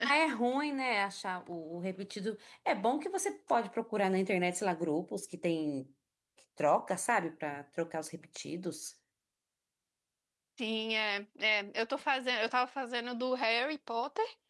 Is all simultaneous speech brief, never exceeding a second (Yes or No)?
Yes